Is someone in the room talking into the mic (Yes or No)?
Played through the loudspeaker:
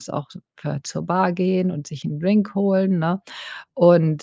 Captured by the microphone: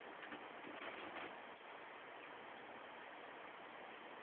No